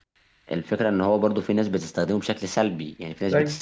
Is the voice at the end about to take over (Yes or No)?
No